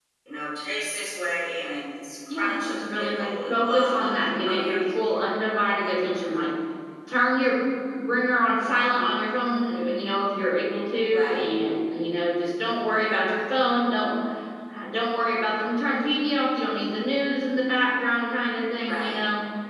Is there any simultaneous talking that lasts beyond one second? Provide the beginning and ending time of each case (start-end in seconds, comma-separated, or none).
2.4-4.1